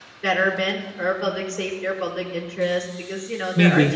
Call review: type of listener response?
listening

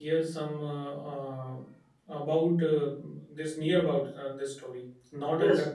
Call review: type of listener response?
taking over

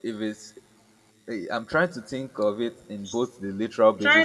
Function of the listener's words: taking over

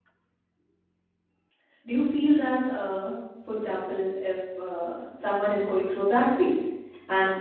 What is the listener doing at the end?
listening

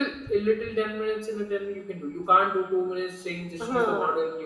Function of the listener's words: listening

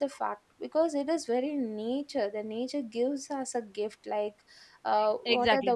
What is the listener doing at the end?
taking over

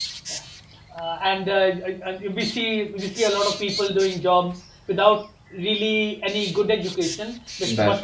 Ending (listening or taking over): listening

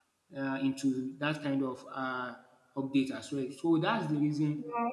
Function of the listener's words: listening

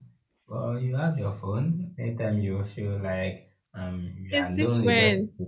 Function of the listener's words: listening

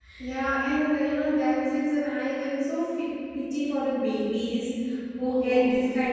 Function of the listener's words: listening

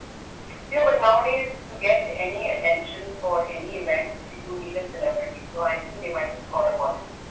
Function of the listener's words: taking over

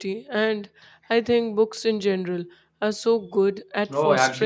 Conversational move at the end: taking over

